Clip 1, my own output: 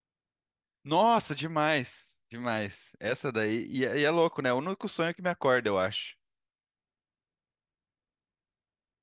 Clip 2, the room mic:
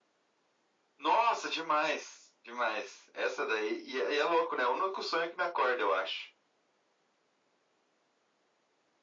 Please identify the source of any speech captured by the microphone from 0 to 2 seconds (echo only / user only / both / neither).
echo only